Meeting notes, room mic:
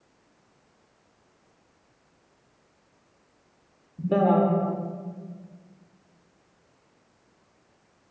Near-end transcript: Да.

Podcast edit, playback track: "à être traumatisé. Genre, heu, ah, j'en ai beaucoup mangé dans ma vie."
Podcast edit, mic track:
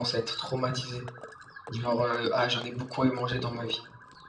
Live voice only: none

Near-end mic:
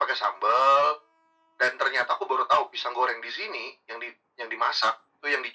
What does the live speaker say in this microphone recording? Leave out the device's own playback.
none

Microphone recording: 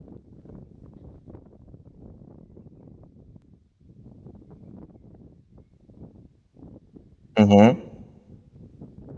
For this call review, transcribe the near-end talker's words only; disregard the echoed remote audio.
Hı hı.

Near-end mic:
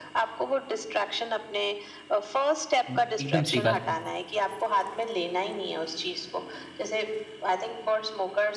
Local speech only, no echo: हुँ, एकदम सही बात है।

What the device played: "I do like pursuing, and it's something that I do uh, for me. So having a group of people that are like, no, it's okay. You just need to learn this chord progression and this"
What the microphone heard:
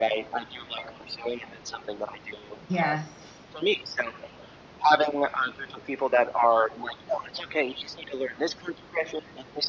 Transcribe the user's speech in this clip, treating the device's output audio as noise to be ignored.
Yes.

